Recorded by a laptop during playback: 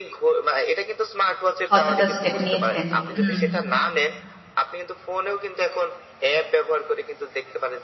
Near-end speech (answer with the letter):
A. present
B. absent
A